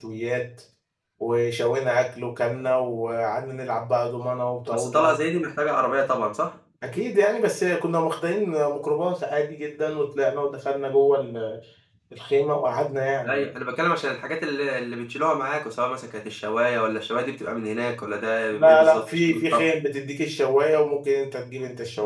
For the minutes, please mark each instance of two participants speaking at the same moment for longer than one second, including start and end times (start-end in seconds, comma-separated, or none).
18.5-19.7